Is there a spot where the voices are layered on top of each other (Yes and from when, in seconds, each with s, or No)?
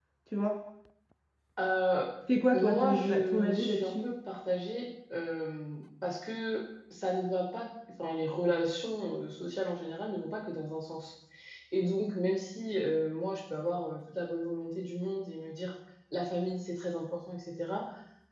Yes, from 2.5 s